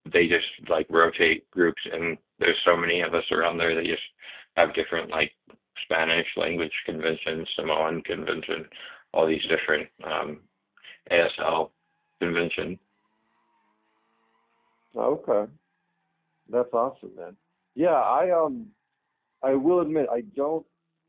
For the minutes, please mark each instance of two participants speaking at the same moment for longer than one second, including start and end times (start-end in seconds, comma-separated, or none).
none